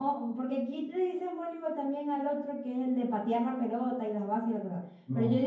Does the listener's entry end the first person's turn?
No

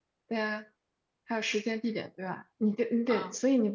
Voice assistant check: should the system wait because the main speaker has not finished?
No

